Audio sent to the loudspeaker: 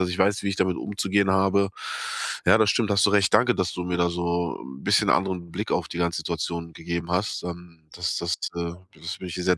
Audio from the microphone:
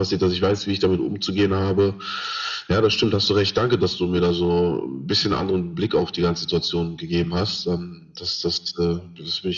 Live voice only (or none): none